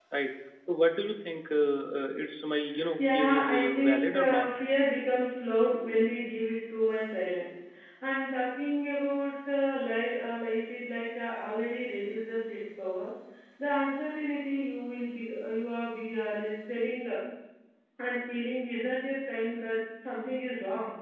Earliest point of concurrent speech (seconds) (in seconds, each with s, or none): 3.0 s